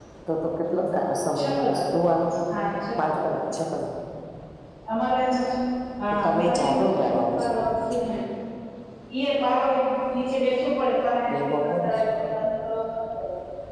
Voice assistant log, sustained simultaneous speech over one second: present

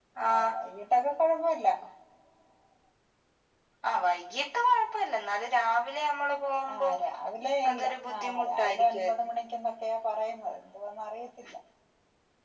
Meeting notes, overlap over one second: present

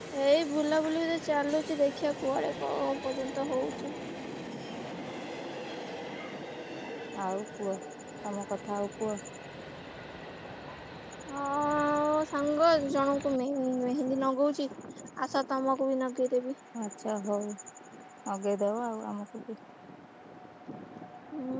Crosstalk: none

